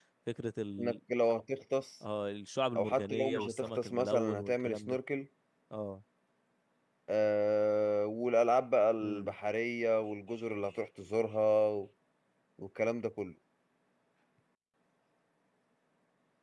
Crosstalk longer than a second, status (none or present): present